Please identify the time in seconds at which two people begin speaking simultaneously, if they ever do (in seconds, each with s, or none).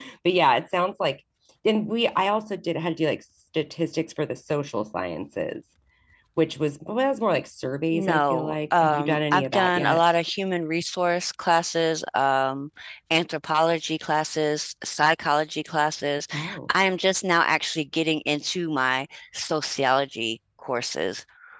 7.9 s